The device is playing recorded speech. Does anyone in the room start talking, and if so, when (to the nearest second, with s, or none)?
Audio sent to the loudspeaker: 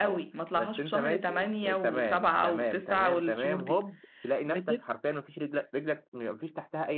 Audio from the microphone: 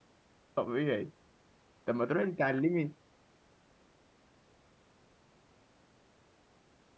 1 s